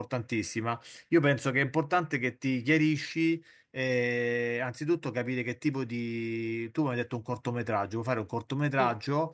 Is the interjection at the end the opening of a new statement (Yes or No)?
No